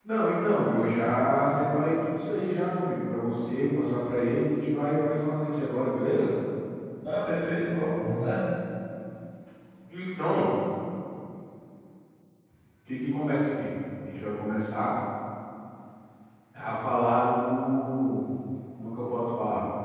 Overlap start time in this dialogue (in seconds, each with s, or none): none